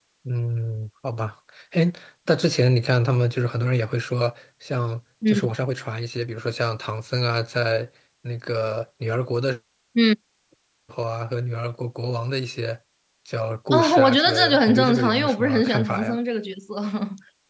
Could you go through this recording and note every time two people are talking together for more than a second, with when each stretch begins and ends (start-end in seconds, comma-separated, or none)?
13.7-16.2